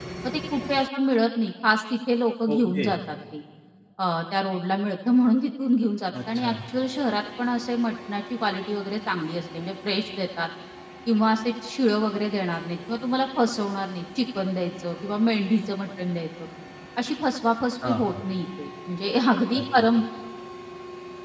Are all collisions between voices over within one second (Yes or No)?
Yes